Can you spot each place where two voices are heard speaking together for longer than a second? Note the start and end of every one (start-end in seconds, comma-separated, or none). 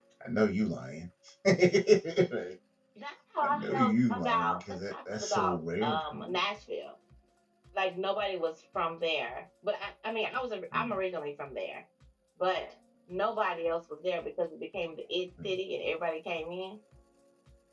3.4-6.3